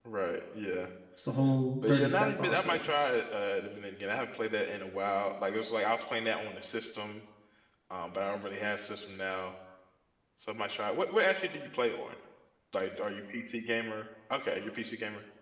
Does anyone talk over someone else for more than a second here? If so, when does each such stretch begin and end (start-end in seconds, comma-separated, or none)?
1.9-3.1